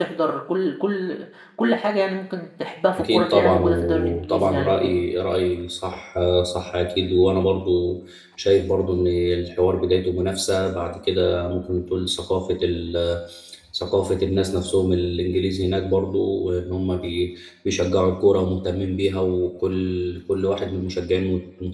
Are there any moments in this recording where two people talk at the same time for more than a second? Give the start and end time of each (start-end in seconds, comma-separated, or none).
3.0-4.9